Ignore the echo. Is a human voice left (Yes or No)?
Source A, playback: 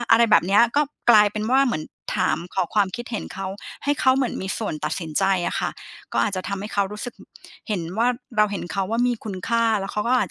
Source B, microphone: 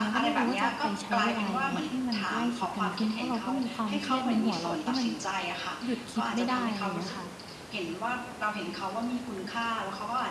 Yes